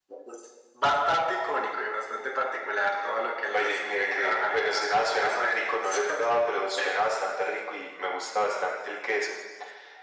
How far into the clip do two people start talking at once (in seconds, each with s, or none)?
3.5 s